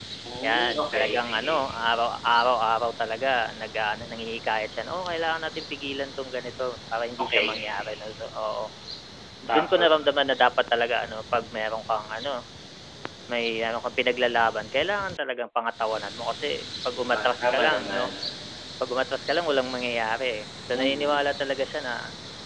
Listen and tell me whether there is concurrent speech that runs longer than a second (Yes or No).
Yes